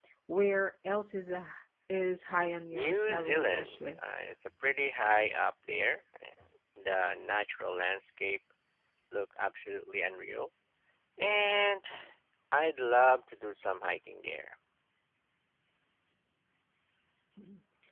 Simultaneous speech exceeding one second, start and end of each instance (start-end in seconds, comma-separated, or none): 2.7-4.2